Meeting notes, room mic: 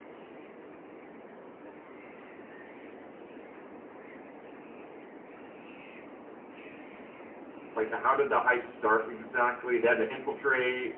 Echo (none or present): none